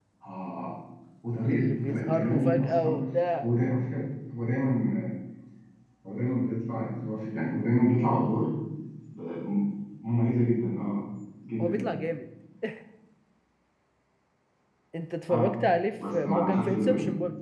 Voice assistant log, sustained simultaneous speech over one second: present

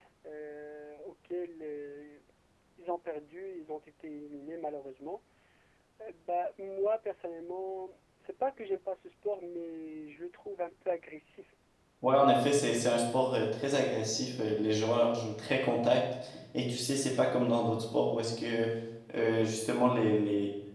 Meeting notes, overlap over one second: none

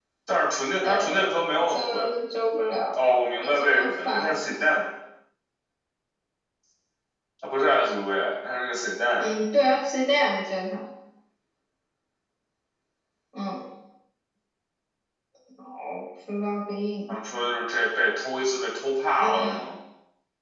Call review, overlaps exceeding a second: present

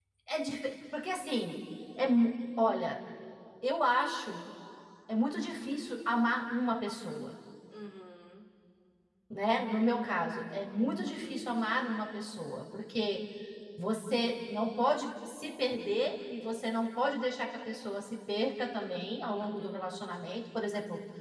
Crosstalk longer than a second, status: none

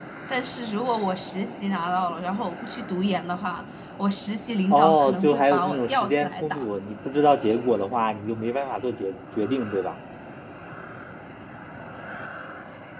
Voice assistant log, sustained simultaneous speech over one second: present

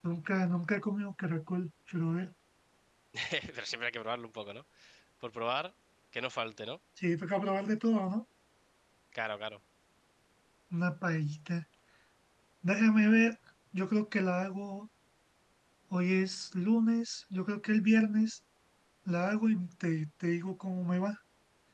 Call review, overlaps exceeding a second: none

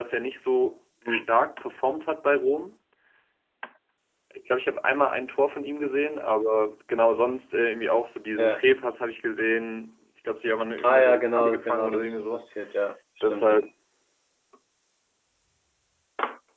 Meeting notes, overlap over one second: present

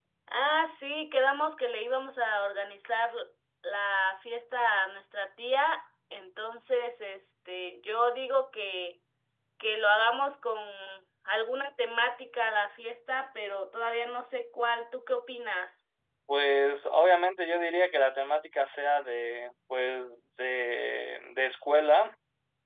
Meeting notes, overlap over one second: none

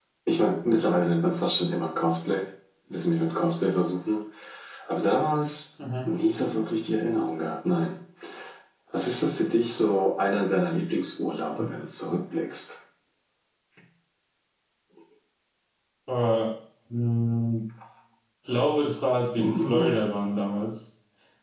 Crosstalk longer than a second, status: none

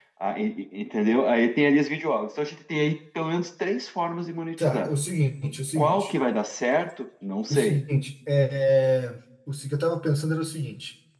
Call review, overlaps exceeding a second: none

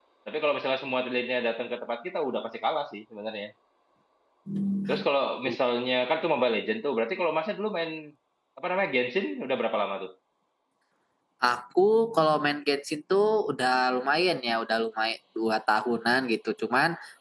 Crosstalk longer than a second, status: none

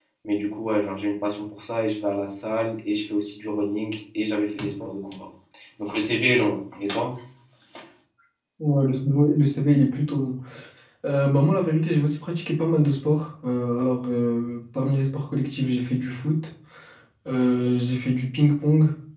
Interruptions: none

